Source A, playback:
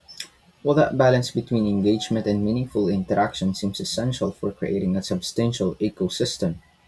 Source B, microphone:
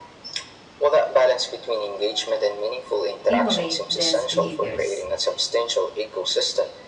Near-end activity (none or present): present